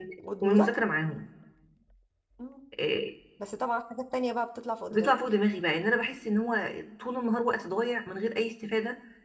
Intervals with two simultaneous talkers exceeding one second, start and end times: none

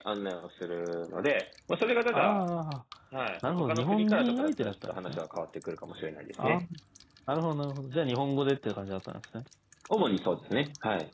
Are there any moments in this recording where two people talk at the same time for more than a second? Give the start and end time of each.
3.6-5.2

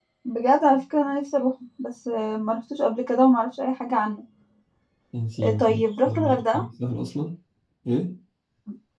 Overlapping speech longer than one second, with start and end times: 5.4-6.6

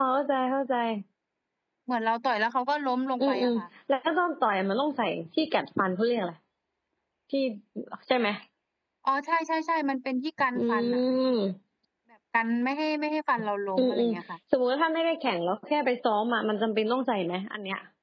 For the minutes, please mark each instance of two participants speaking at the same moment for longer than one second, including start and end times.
none

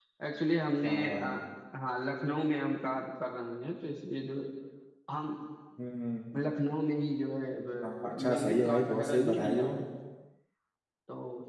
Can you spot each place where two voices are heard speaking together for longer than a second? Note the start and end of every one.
7.8-9.8

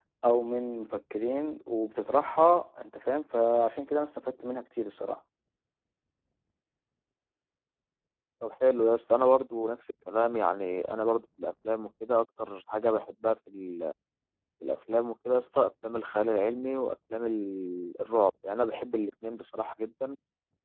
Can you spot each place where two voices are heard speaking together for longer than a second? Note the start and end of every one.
none

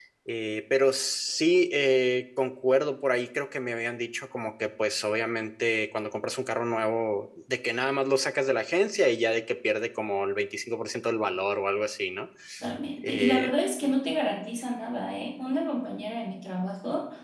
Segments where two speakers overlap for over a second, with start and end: none

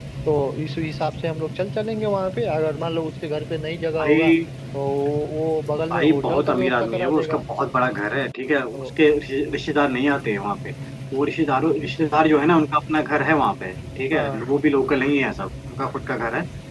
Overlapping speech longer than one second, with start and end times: 5.9-7.4

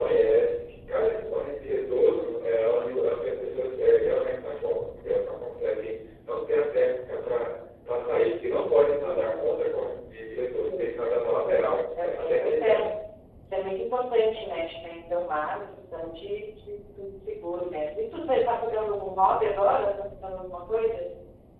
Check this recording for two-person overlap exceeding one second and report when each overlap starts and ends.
11.6-12.8

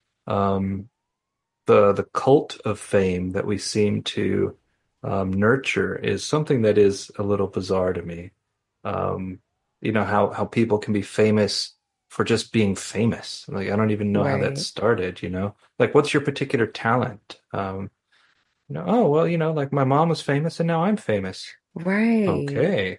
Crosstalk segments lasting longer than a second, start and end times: none

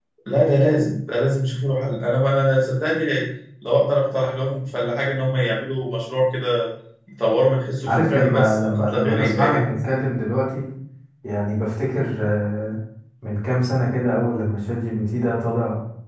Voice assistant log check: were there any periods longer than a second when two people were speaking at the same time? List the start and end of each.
7.9-9.6

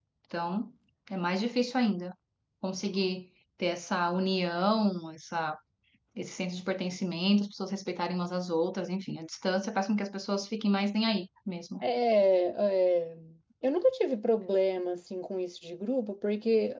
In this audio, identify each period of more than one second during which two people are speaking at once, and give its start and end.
none

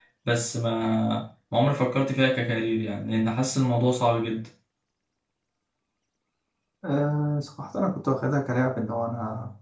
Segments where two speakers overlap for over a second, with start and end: none

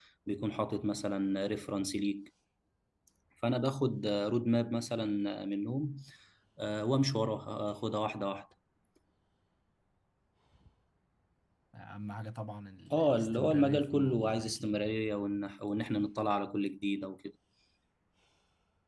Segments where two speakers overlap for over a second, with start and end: 12.9-14.8

